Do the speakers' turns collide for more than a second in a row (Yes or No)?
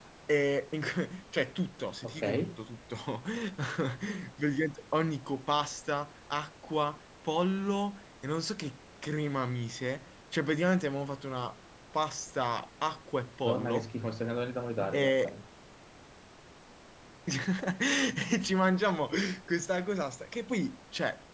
No